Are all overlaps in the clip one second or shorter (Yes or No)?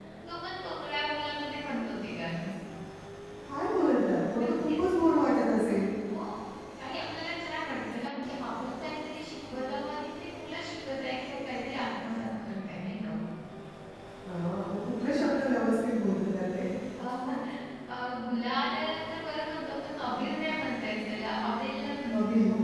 Yes